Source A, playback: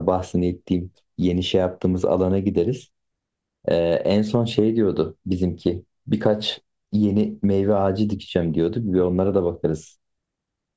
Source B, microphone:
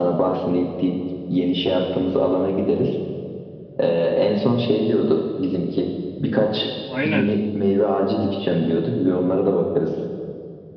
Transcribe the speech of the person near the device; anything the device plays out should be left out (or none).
Aynen.